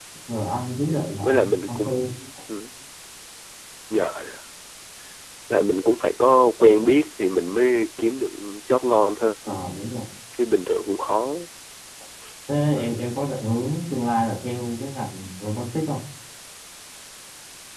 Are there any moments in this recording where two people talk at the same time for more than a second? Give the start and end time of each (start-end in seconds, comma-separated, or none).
0.8-2.0